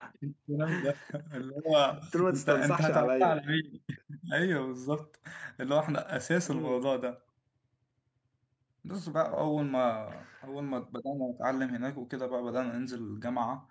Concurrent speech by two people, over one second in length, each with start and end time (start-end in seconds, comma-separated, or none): 2.1-3.4